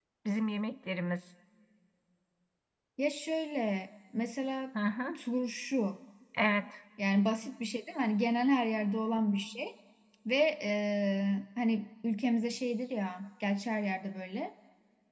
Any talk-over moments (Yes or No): No